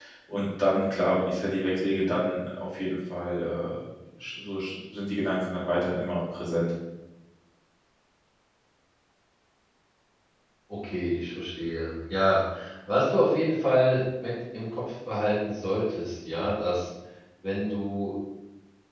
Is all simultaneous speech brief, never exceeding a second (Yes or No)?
Yes